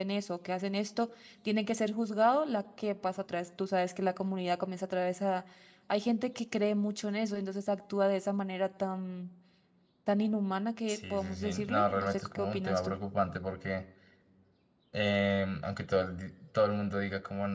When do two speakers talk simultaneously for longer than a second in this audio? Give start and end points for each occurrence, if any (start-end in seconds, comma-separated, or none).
10.9-12.9